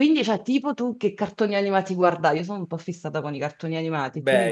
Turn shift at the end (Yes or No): Yes